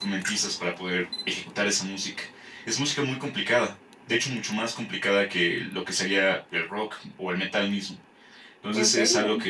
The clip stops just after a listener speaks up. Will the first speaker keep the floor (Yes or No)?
Yes